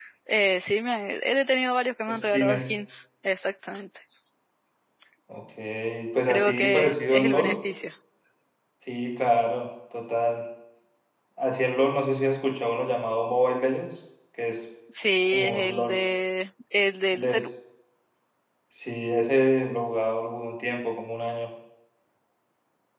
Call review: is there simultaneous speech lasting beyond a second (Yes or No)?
Yes